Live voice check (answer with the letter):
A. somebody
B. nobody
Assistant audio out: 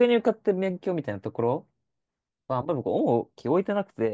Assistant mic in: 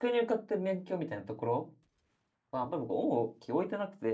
B